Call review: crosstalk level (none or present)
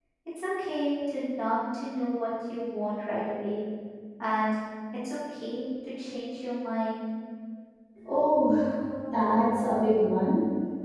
none